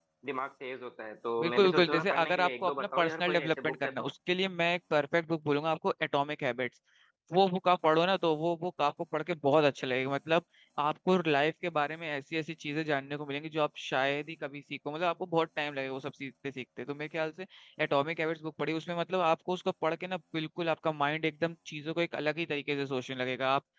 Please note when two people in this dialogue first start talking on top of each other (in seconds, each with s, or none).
1.4 s